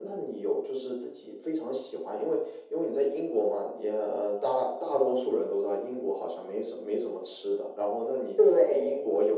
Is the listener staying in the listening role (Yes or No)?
Yes